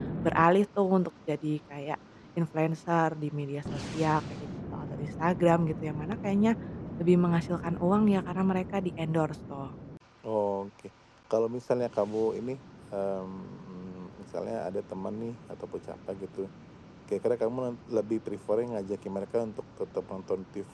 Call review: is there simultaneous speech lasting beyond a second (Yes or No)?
No